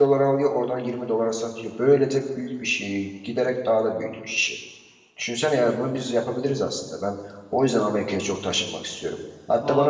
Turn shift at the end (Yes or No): No